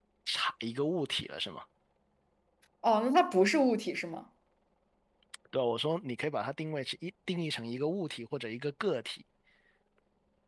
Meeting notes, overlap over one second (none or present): none